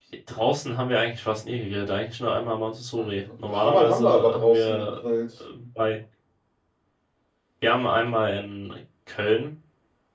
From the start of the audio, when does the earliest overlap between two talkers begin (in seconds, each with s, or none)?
3.5 s